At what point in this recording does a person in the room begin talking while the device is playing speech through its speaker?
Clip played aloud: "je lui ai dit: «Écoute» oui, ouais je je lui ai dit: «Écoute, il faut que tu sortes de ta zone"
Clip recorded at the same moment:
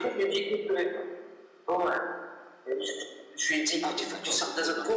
3.8 s

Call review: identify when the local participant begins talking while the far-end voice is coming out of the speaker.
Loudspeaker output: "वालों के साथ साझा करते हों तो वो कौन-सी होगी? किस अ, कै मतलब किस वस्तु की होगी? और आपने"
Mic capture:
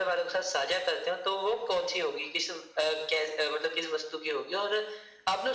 none

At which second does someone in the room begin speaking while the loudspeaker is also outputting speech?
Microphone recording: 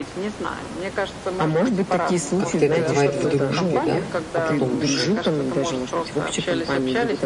2.4 s

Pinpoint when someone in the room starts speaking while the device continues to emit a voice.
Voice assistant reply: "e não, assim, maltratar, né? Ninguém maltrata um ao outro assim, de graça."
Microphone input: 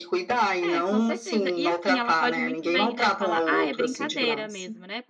0.6 s

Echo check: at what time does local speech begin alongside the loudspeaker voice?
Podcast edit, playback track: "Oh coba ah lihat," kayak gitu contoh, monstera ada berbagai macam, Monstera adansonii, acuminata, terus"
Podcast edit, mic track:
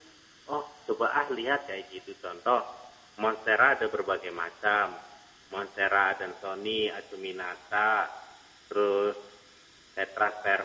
none

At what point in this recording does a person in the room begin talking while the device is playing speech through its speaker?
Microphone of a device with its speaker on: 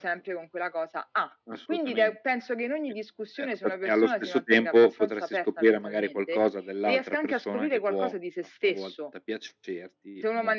none

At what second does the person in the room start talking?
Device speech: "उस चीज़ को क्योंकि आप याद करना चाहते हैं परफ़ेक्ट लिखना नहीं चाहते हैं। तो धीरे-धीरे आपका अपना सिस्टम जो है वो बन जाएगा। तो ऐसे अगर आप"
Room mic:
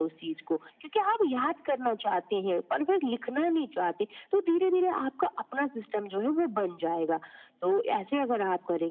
none

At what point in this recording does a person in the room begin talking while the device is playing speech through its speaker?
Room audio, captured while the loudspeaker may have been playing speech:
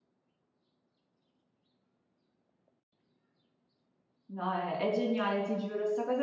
4.3 s

